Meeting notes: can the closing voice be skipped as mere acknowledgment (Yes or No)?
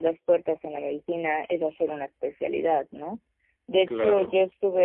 Yes